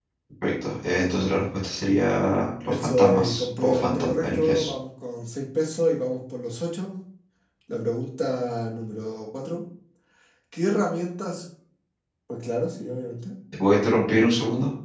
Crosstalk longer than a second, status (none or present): present